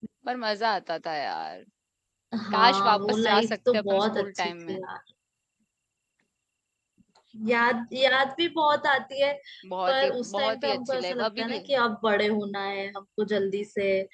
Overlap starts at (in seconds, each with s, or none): 2.5 s